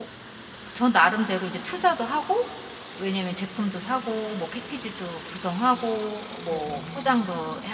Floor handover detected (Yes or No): No